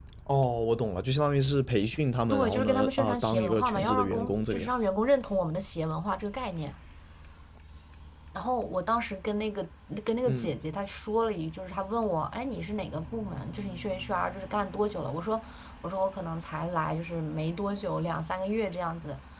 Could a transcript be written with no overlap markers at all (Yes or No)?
No